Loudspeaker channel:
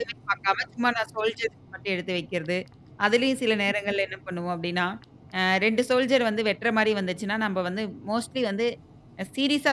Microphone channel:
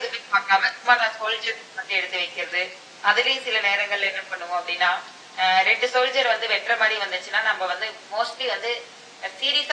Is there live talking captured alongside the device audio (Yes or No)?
No